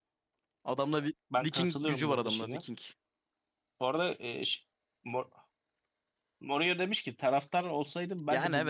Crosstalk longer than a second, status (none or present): present